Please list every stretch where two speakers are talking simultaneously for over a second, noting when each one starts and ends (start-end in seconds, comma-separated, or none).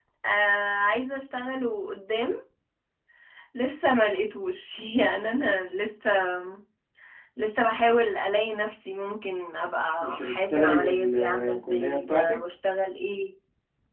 10.0-12.4